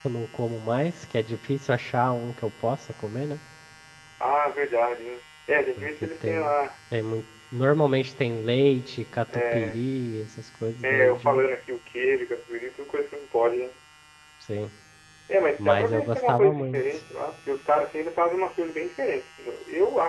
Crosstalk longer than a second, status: present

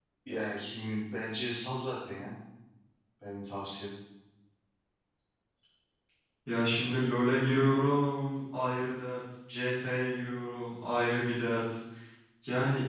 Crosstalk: none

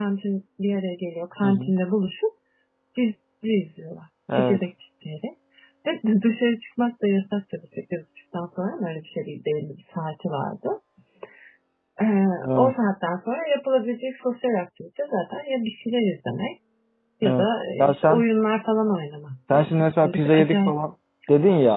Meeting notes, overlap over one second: present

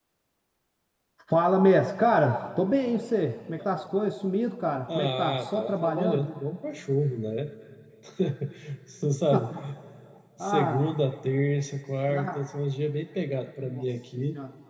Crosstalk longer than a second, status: present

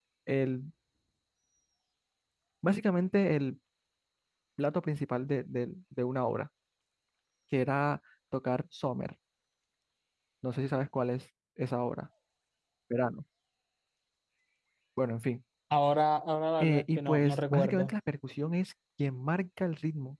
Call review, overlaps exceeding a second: present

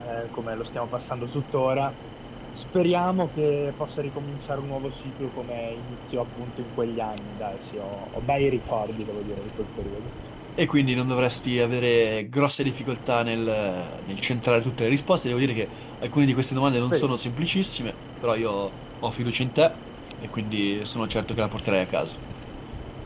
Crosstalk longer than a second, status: none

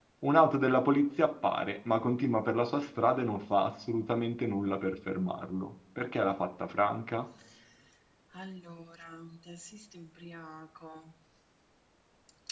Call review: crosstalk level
none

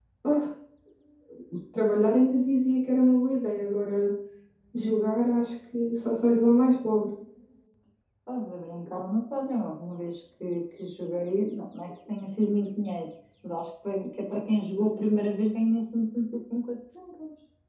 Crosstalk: none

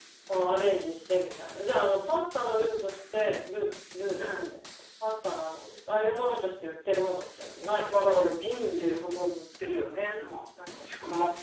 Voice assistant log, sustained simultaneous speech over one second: none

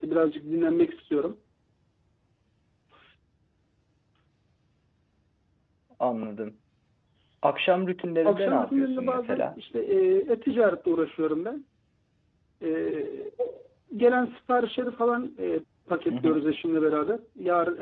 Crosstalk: present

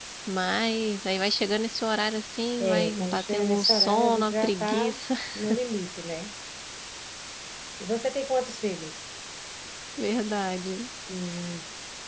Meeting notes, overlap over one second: present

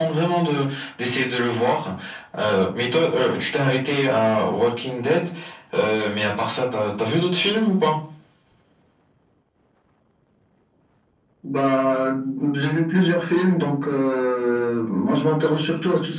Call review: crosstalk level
none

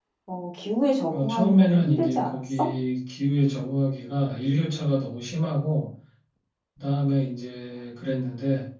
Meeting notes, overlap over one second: present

